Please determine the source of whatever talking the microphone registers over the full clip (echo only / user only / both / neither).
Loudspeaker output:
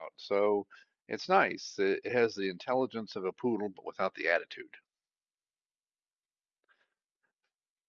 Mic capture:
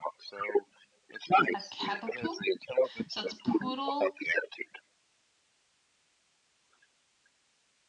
both